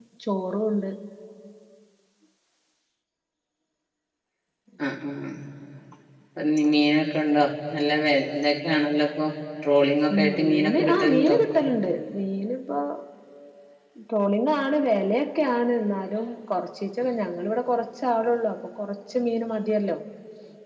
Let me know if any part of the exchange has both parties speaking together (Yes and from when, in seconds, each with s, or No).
Yes, from 10.1 s